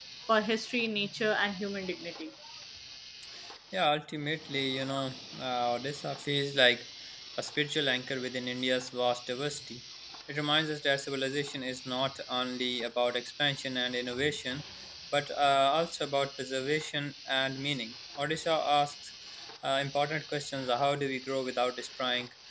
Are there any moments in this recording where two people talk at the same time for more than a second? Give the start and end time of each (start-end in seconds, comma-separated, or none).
none